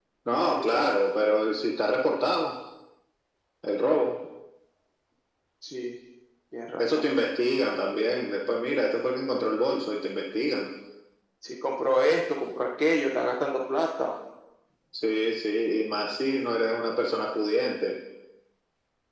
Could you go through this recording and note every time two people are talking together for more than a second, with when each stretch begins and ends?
none

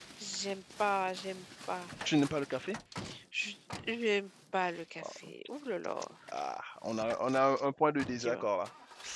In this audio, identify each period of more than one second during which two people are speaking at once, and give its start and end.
none

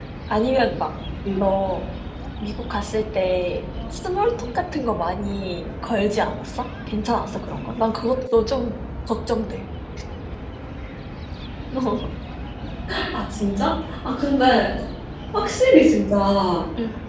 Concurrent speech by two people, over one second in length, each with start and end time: none

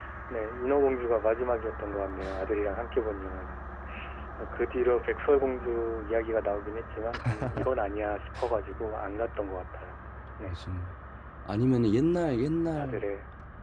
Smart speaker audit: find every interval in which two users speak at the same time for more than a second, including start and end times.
none

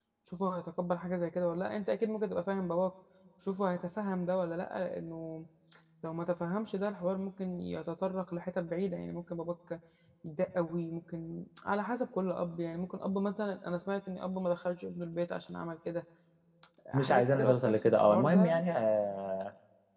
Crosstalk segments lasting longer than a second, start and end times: 16.9-18.6

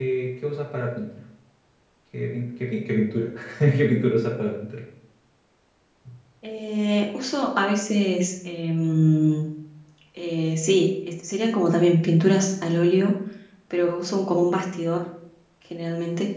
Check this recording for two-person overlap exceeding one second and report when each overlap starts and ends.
none

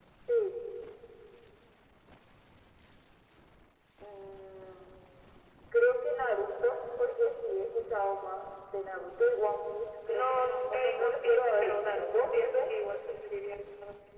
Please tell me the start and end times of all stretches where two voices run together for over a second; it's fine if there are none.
10.1-12.7

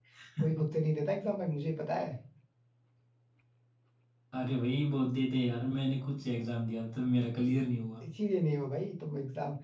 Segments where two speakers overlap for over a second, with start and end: none

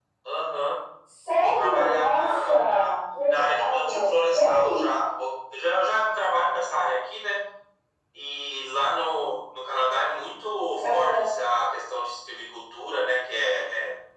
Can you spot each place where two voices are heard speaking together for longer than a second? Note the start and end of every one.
1.4-2.9, 3.3-4.9

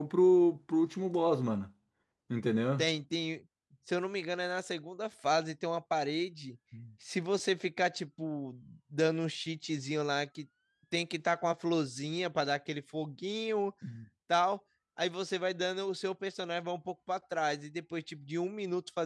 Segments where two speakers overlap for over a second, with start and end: none

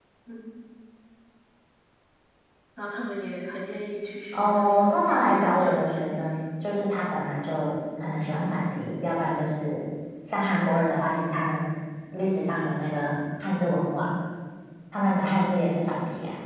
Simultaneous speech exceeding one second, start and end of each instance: 4.3-6.2

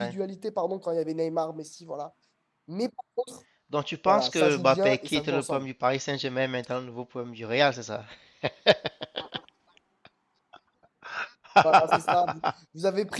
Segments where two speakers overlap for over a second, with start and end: 4.0-5.6

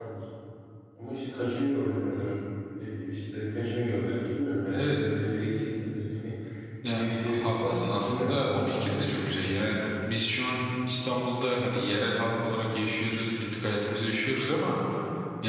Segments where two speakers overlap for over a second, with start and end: 6.9-9.4

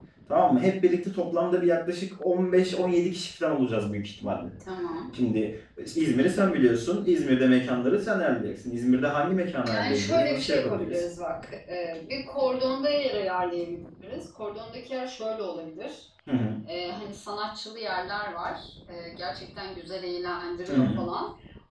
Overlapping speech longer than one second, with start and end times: 9.7-11.0

